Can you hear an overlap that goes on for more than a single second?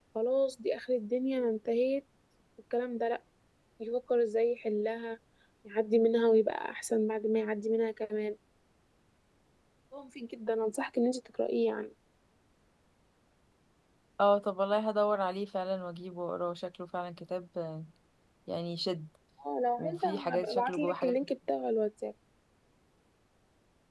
Yes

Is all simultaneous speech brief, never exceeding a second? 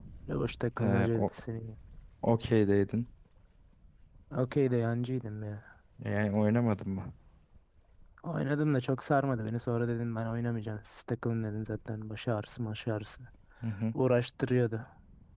Yes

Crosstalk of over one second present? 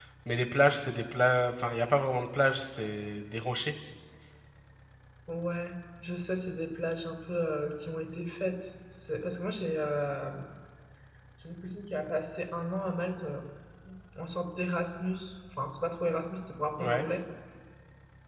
No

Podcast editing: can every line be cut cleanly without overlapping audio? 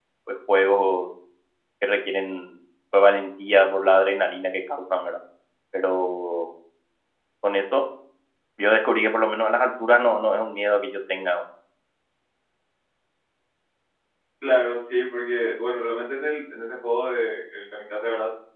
Yes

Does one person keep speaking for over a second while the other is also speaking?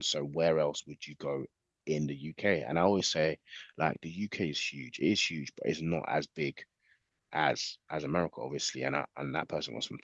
No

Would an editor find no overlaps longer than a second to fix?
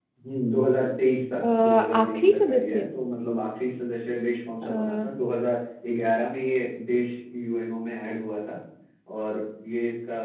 No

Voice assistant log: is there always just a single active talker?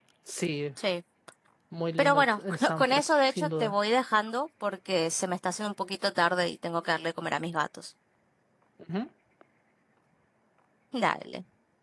No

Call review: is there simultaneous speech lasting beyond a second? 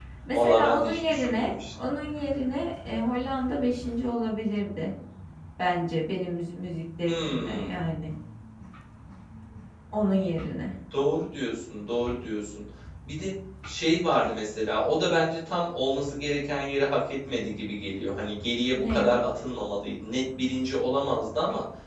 Yes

